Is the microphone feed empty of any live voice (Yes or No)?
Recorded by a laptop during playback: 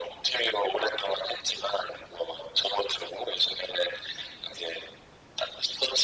Yes